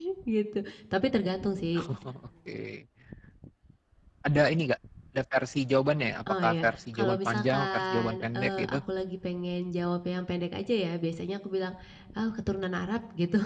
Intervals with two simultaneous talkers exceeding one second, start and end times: 6.3-8.8

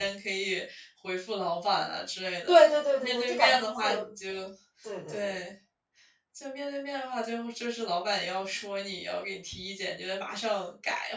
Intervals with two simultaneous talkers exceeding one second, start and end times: 2.5-4.0

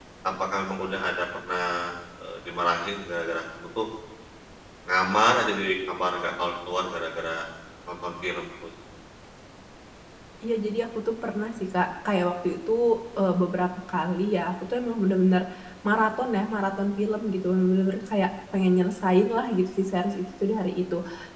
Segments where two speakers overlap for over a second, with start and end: none

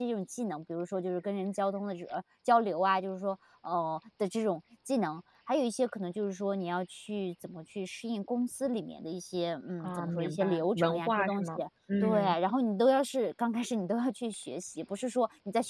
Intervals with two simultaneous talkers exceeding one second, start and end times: 9.8-11.5

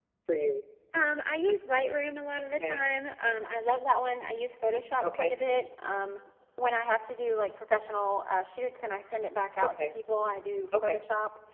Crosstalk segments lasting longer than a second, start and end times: none

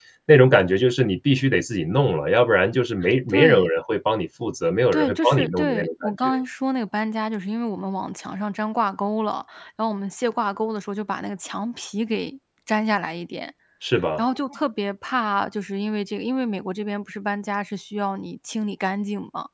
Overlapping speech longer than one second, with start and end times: 4.9-6.3

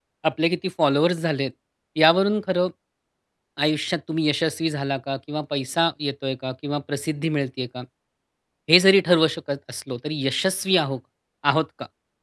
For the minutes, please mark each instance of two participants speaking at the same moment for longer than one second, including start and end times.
none

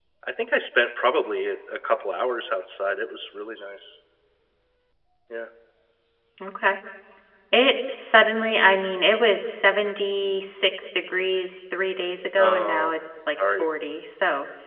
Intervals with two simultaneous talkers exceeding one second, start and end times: none

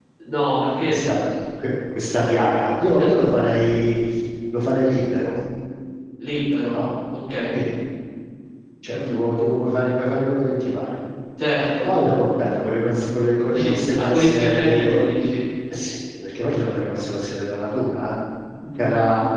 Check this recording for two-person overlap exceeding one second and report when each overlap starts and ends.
13.5-14.9

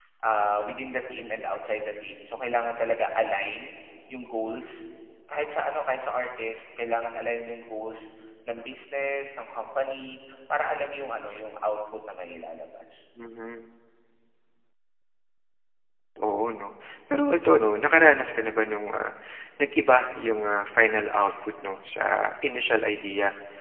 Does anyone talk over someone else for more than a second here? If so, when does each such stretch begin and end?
none

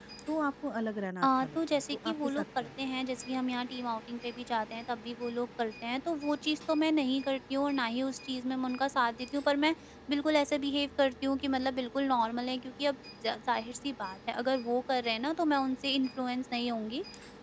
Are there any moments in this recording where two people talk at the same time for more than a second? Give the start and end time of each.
1.2-2.8

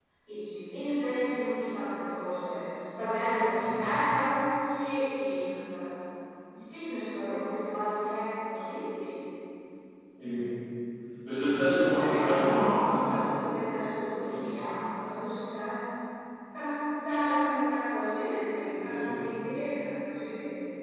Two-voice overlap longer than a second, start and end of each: 11.6-13.3

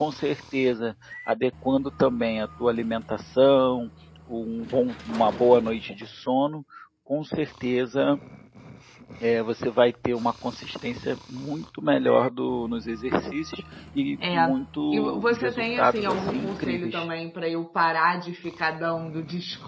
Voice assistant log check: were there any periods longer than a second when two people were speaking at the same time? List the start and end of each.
14.9-17.1

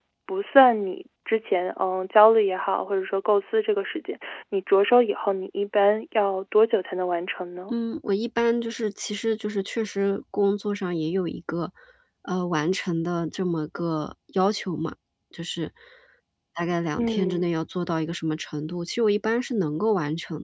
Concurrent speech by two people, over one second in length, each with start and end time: none

